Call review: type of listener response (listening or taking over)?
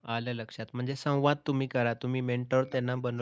listening